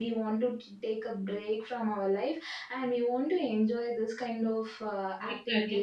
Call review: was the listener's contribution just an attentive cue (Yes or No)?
No